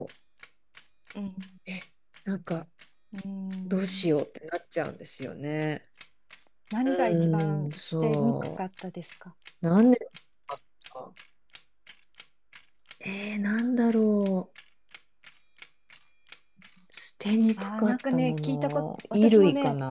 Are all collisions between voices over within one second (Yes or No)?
No